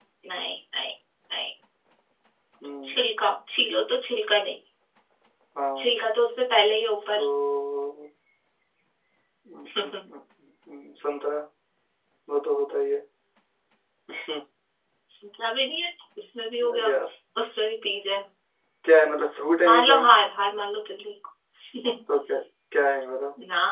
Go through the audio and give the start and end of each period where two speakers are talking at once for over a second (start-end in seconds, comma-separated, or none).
none